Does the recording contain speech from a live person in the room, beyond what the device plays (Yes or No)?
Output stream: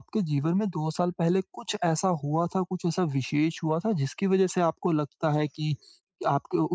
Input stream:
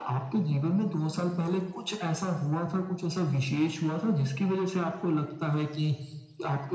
No